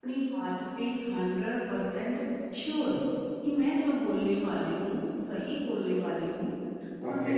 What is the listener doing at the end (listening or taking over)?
listening